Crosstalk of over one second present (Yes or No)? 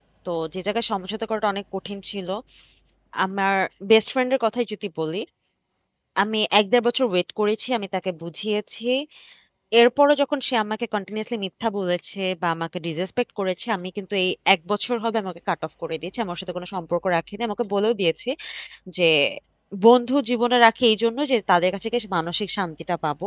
No